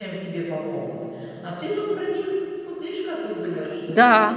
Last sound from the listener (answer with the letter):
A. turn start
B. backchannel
A